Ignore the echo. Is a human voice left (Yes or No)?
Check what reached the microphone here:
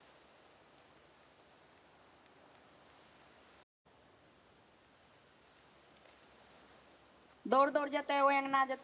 Yes